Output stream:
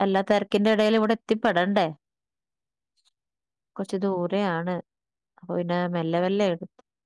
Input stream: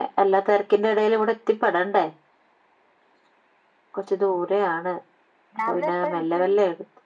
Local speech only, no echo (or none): രാവിലെ എപ്പ നിക്കും.